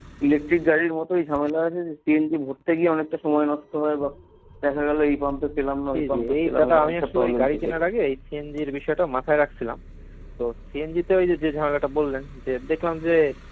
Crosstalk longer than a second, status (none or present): present